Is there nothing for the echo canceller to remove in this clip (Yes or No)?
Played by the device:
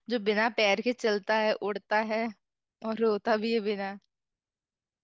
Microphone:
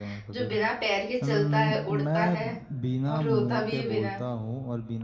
No